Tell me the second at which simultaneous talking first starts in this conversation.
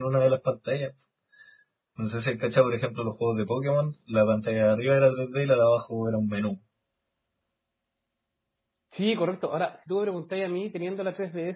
none

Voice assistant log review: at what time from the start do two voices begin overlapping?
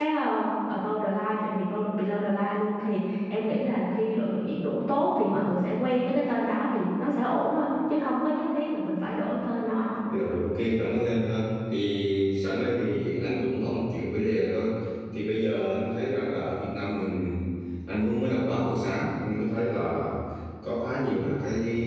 none

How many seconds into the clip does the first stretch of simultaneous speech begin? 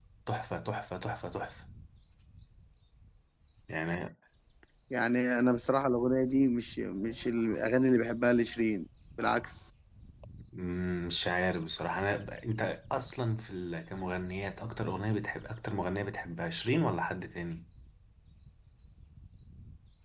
none

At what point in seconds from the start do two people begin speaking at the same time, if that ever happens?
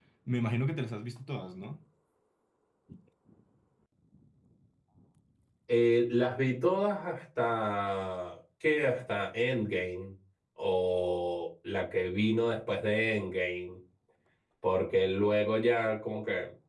none

